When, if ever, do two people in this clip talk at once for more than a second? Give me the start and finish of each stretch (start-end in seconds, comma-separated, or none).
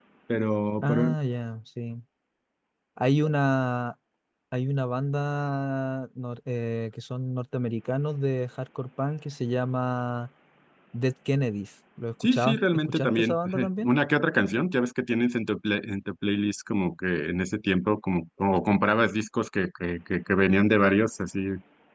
12.2-13.9